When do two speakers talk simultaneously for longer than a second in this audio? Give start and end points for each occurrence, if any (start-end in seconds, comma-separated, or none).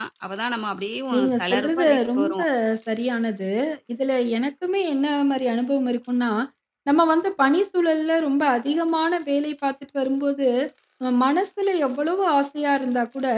1.1-2.4